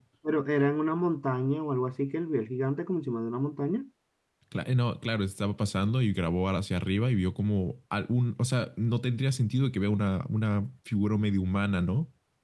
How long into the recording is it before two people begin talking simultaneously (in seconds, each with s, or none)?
none